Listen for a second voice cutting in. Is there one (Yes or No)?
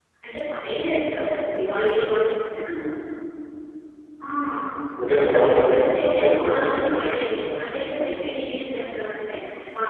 Yes